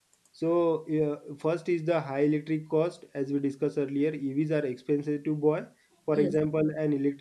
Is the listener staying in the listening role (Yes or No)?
Yes